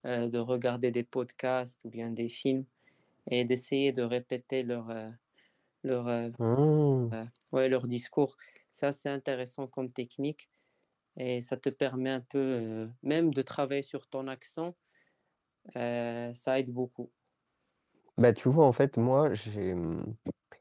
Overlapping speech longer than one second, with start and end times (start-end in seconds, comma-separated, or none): none